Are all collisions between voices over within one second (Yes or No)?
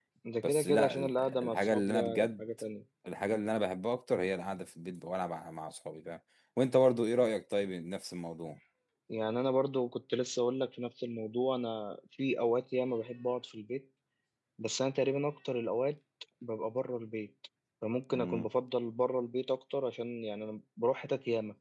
No